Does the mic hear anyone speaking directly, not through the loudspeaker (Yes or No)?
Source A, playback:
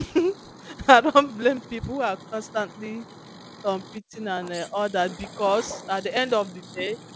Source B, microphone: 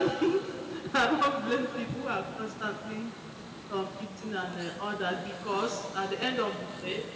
No